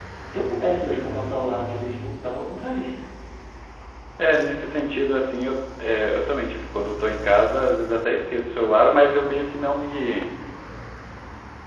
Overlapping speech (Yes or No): No